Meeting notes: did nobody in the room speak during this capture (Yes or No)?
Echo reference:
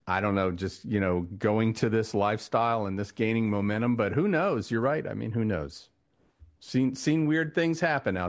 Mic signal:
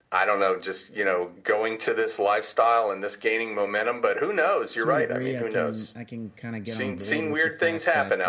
No